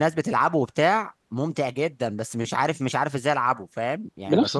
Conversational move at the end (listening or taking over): taking over